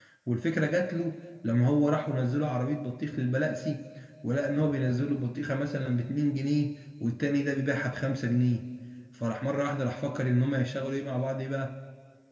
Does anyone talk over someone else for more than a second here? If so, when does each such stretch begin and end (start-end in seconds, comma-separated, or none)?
none